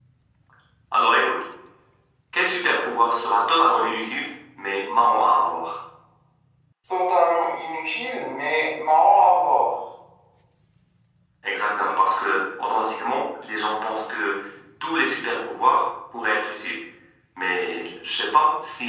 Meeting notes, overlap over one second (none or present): none